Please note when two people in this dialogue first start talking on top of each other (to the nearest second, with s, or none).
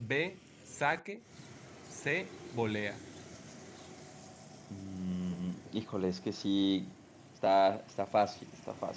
none